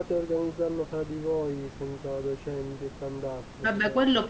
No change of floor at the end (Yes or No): No